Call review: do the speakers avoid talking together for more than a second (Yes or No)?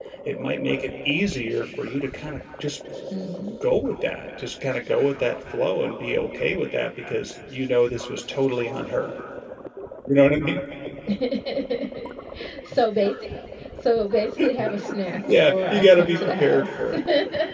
No